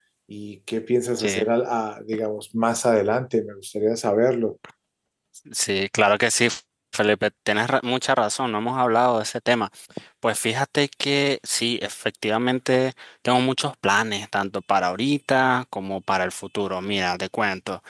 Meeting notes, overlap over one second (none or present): none